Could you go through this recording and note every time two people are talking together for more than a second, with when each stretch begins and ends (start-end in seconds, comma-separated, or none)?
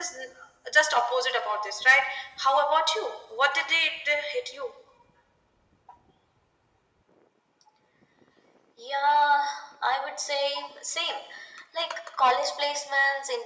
none